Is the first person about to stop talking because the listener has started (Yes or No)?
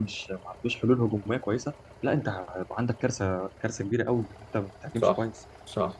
Yes